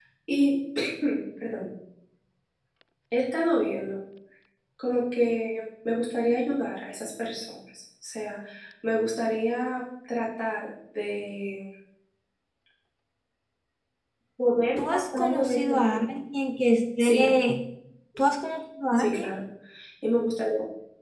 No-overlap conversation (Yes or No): No